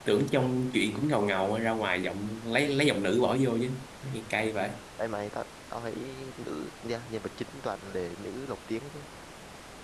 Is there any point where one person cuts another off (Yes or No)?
No